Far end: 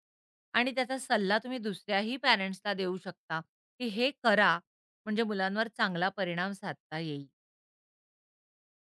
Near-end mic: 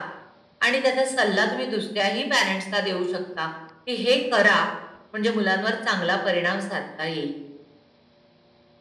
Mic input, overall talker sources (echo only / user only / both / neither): echo only